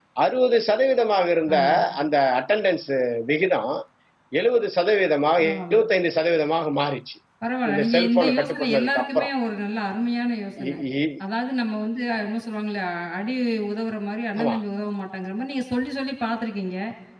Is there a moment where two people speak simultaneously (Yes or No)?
Yes